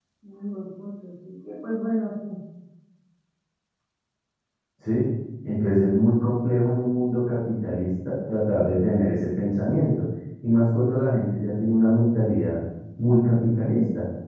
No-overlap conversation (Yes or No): Yes